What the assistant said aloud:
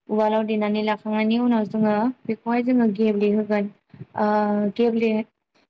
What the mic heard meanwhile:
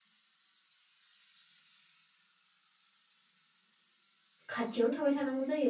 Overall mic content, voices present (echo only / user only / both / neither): user only